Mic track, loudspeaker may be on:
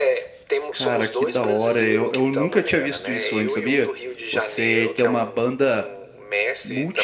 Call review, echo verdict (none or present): present